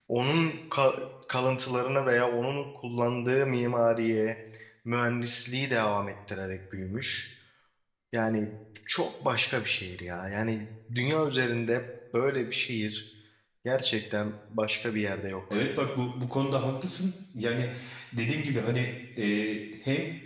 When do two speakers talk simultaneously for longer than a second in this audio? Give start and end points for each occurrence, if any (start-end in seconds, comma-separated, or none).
none